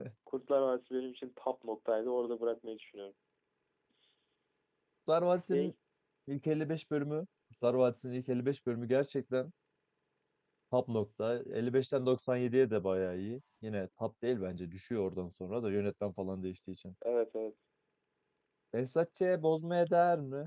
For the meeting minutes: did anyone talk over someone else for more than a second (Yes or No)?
No